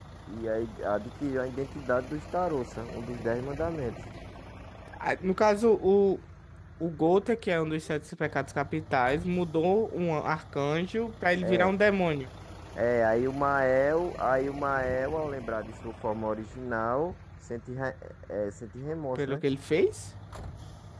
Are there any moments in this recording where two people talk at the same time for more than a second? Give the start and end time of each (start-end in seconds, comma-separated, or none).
none